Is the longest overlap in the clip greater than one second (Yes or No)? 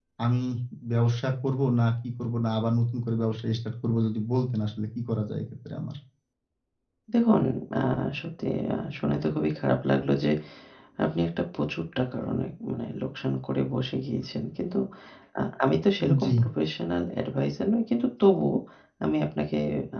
No